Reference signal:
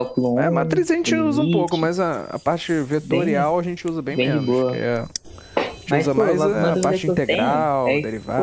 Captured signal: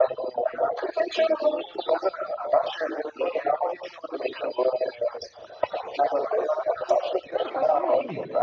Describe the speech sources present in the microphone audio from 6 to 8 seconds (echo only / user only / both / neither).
both